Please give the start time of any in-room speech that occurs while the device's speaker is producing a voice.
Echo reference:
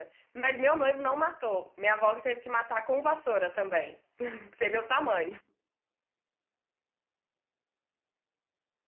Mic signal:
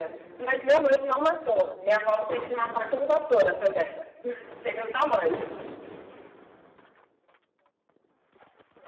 none

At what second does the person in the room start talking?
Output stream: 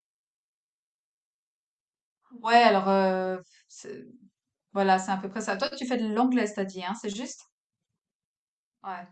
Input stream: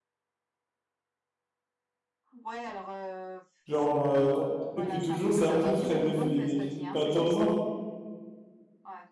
3.6 s

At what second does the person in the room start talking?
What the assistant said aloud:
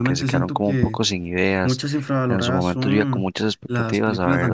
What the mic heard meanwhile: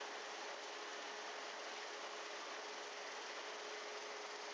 none

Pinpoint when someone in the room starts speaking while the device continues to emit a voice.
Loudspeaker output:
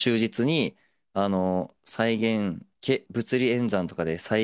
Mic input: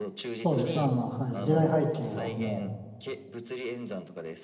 0.4 s

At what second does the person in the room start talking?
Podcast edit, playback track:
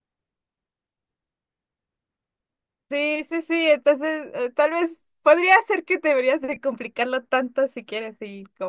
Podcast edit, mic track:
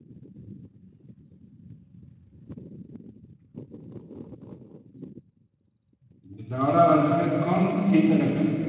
6.3 s

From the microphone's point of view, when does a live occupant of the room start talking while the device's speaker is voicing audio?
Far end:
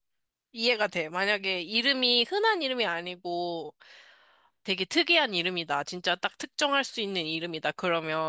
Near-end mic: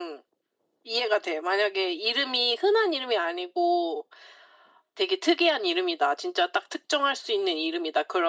none

